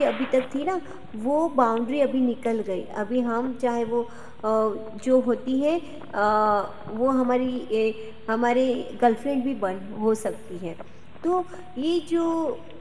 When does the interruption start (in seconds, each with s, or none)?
none